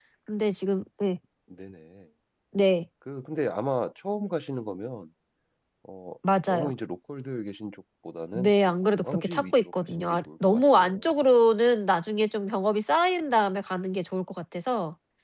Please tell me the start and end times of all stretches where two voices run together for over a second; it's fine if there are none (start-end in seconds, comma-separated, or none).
8.3-11.0